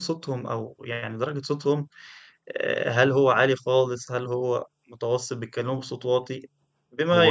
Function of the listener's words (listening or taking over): listening